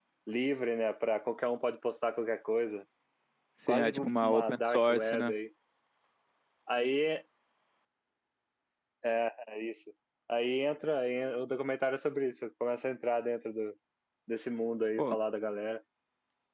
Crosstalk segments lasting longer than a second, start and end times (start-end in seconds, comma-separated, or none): 3.7-5.4